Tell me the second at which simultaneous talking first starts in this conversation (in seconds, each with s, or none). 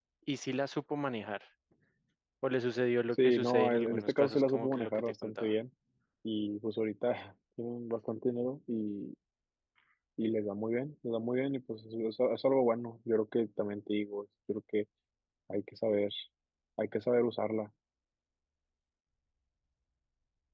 3.1 s